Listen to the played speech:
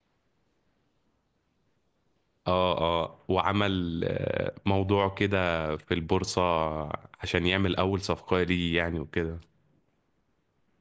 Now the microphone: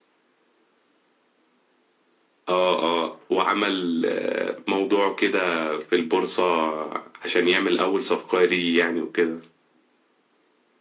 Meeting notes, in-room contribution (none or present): none